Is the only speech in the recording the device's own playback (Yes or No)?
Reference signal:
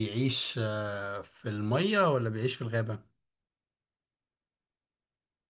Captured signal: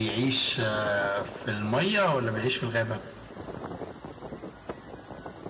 Yes